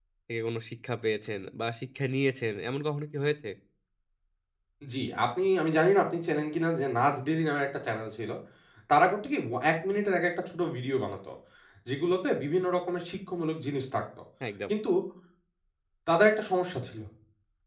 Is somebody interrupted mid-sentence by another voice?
No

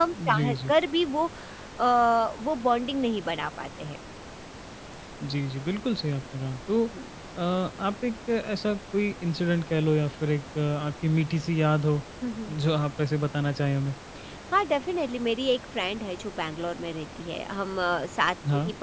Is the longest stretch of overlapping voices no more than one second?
Yes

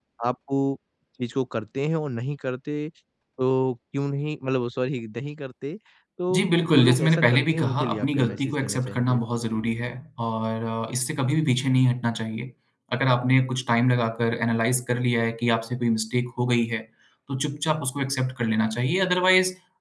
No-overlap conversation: No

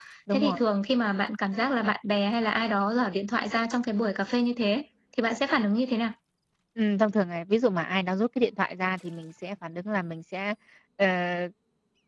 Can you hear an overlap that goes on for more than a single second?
No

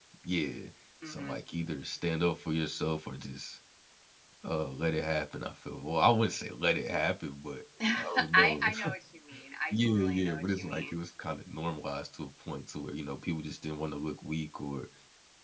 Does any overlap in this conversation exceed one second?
Yes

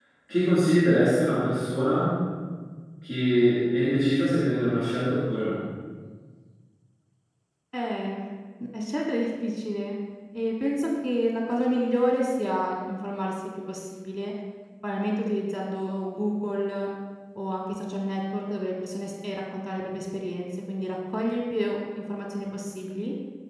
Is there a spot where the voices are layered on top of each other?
No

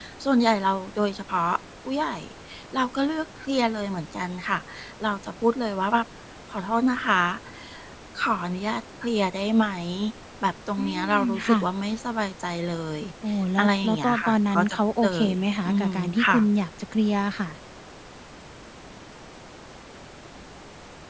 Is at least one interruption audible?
Yes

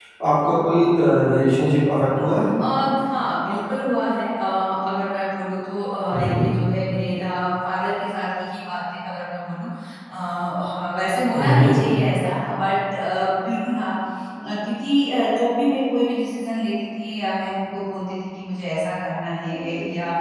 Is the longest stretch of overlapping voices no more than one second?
Yes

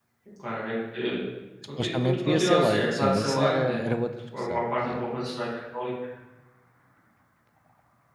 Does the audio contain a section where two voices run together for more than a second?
Yes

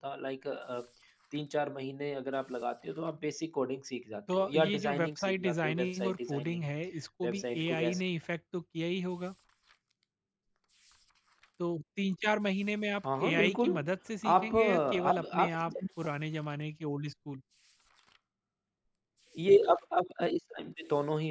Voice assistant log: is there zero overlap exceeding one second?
No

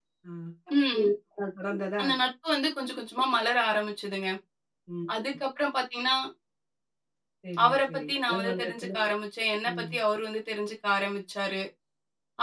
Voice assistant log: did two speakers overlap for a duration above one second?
Yes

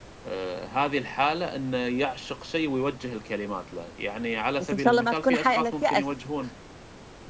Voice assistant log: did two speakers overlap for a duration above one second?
Yes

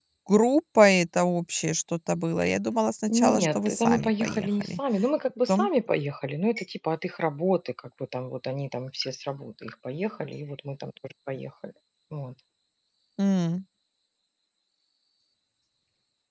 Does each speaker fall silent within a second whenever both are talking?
No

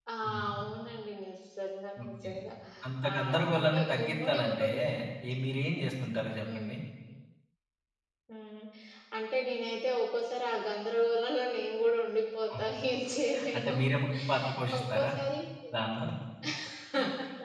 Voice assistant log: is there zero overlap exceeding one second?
No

